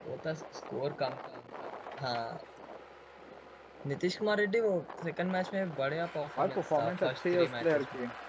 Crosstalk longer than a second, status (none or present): present